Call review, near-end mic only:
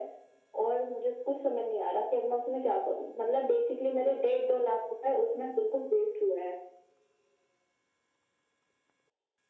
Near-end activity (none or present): none